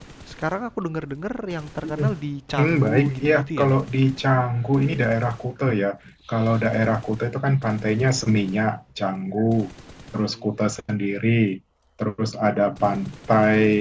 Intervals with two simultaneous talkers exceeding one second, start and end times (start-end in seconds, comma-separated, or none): 2.6-3.8